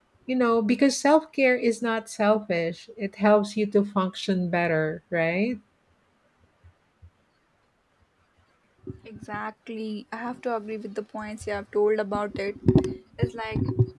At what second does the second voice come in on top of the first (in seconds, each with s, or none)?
none